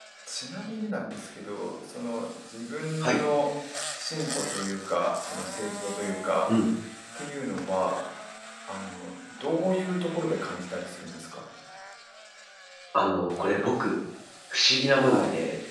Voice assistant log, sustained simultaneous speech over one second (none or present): none